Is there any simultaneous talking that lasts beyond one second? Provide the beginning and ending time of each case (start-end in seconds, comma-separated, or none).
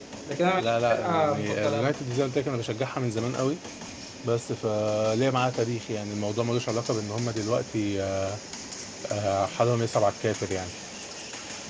0.6-1.9